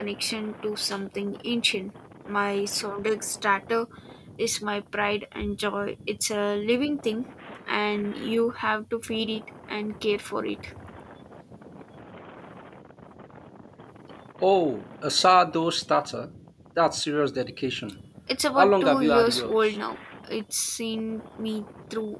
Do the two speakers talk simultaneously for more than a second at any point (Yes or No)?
Yes